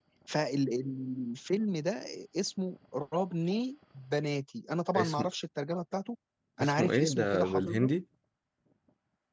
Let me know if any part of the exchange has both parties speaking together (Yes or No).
Yes